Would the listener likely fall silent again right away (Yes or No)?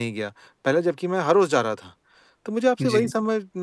Yes